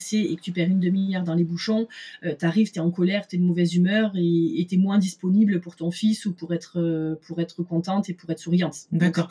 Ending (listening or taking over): taking over